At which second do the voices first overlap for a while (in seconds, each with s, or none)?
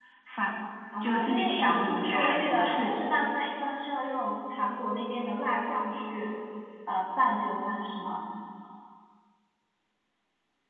1.0 s